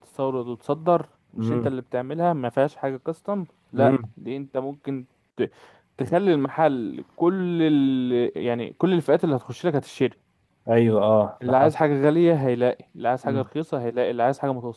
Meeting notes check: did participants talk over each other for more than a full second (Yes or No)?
No